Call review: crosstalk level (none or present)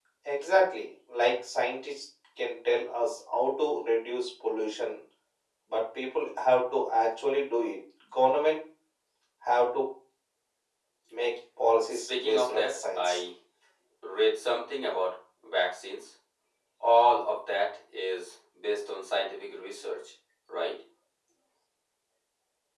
present